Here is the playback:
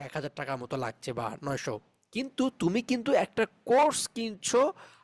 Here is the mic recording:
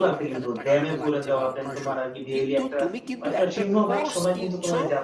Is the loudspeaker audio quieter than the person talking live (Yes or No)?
Yes